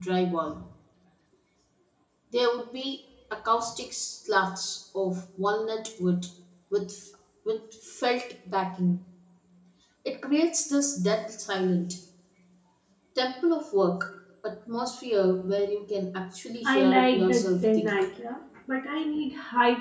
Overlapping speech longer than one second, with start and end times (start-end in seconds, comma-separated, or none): 16.6-18.0